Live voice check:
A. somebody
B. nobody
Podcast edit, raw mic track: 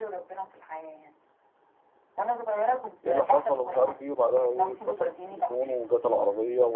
A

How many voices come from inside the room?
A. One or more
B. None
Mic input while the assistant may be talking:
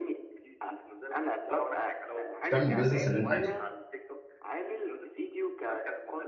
A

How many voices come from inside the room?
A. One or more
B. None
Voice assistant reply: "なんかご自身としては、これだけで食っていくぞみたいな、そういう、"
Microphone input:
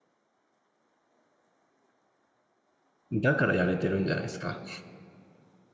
A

